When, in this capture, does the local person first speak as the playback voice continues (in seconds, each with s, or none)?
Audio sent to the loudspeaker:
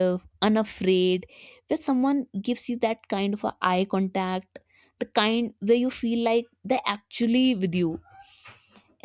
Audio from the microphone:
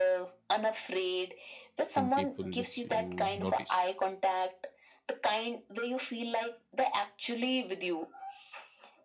1.9 s